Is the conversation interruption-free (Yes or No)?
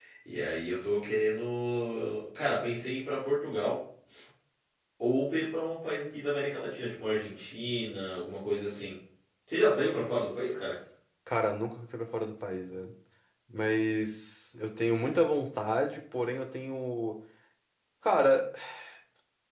Yes